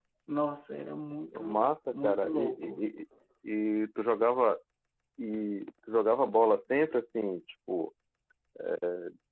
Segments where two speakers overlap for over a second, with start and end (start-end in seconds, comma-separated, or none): 1.3-2.8